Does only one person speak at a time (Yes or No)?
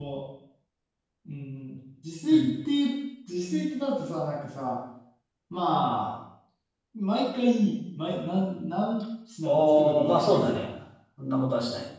No